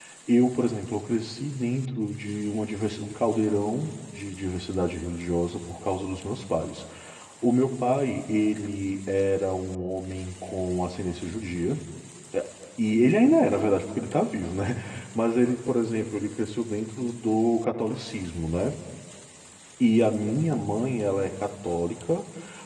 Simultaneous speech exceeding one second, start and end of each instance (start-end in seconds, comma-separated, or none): none